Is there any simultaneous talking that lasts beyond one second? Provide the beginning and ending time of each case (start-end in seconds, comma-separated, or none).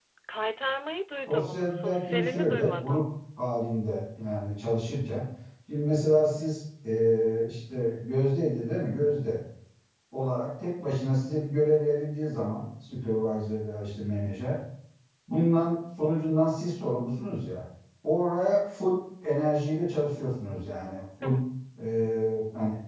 1.3-3.1